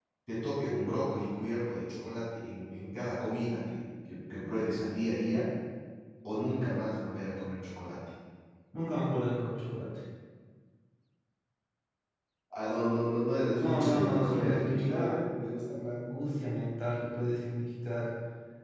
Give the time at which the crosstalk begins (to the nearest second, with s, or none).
14 s